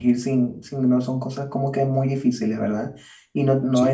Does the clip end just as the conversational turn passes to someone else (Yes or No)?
No